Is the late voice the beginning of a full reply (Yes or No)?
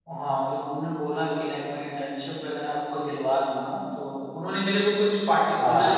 No